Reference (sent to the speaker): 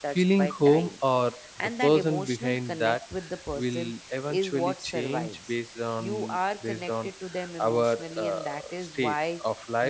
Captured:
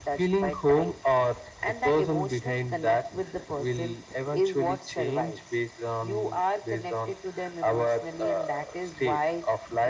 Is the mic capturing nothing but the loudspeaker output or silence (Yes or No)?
Yes